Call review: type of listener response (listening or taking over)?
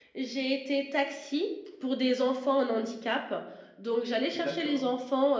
listening